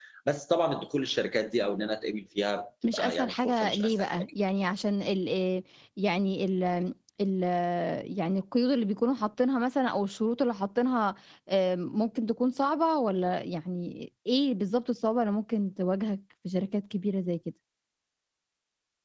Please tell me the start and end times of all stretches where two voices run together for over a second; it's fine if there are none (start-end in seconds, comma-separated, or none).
2.8-4.3